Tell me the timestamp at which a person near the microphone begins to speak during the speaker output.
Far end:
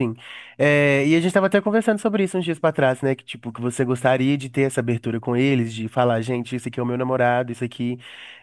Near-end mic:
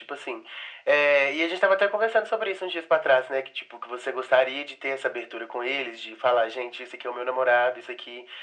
none

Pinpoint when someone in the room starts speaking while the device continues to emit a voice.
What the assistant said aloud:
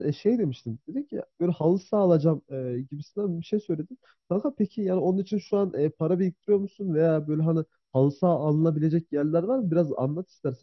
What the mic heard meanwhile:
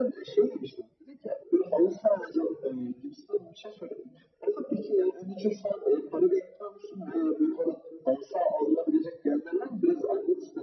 none

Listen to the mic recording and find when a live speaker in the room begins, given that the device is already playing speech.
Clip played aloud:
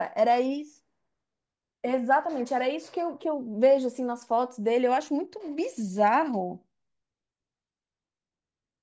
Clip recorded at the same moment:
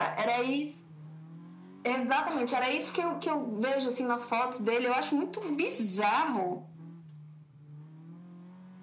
none

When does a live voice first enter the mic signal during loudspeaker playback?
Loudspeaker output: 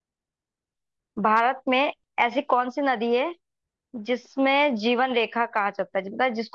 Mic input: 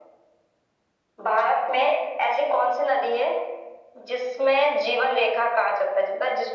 none

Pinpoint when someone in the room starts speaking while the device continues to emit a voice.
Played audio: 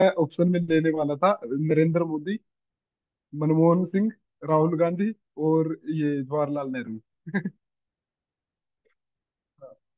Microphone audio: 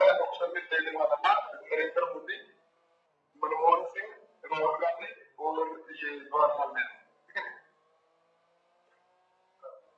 none

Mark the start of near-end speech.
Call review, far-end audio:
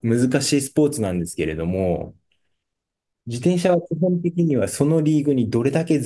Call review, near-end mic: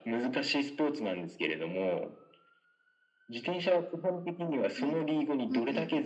4.8 s

